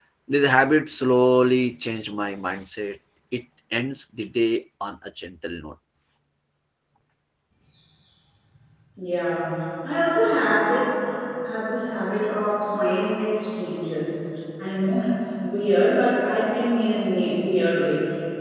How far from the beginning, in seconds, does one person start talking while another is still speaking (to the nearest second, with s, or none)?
none